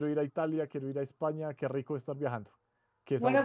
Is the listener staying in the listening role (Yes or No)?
No